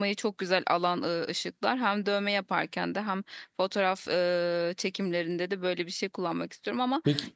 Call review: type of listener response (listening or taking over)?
listening